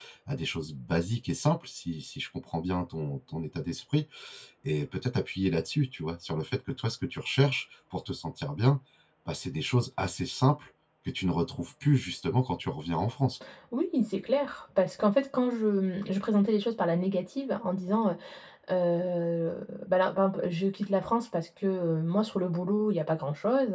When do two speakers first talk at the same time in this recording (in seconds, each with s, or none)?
none